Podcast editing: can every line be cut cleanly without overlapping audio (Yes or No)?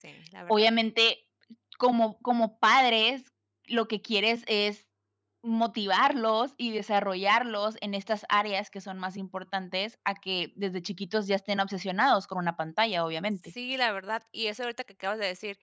Yes